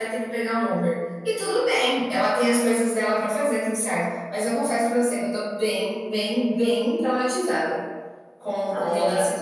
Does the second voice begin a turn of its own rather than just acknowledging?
Yes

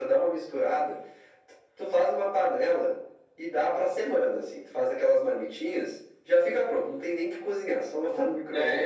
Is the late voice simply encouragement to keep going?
No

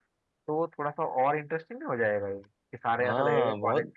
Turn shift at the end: Yes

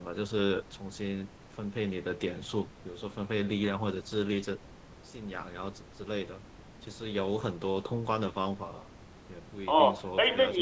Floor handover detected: Yes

